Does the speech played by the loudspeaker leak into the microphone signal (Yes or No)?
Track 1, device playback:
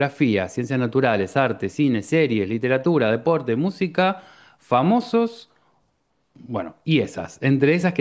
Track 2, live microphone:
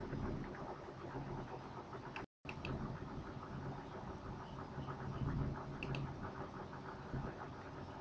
No